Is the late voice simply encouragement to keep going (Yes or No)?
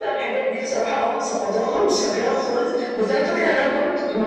Yes